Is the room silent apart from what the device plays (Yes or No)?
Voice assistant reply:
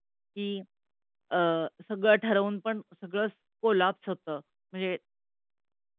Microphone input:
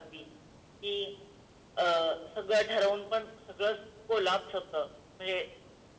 Yes